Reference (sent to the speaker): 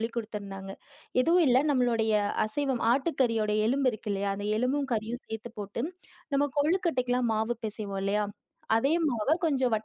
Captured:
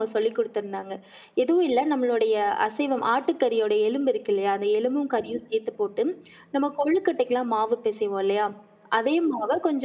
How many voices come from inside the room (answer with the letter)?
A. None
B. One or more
A